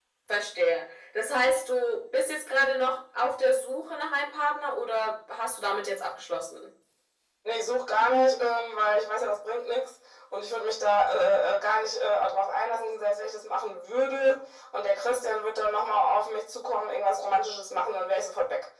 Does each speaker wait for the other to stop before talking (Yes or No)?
Yes